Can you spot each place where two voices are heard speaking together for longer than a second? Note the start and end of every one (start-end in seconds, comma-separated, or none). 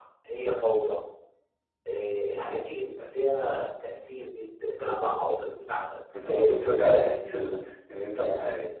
none